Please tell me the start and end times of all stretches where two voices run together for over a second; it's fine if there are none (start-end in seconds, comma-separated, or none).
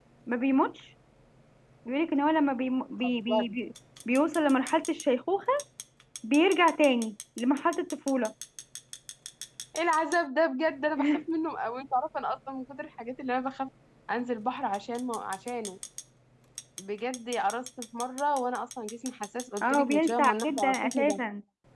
19.6-21.2